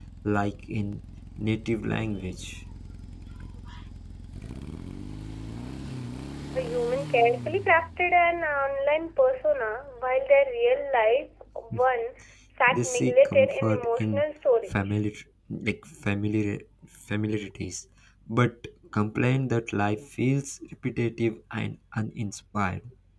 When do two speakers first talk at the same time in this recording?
12.7 s

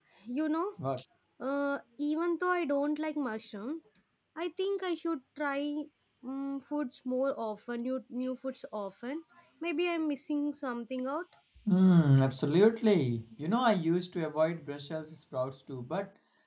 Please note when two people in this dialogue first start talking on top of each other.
none

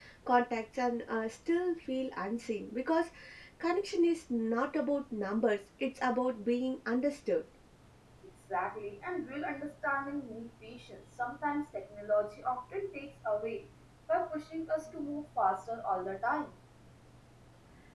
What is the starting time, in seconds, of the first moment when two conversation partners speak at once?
none

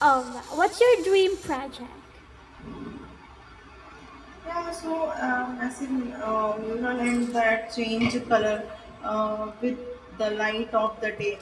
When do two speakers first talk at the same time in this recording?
none

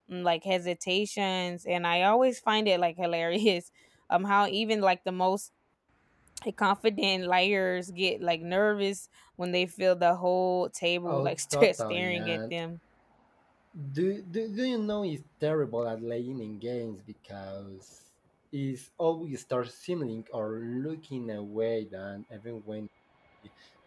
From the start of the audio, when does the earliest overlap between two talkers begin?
11.0 s

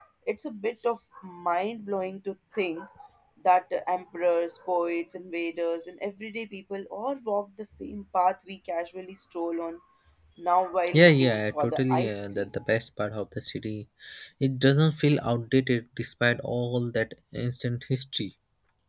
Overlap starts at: 10.9 s

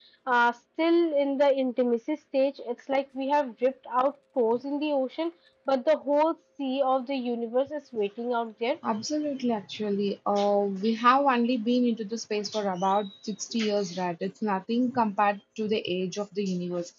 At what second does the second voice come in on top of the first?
none

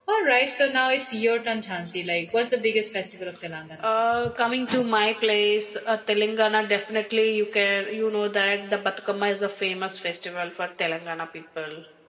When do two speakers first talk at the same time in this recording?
none

